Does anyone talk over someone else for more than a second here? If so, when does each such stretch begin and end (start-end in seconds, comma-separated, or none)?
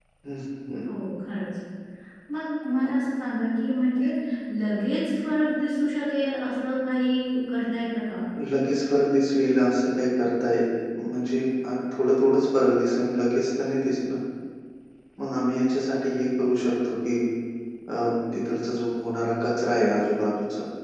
none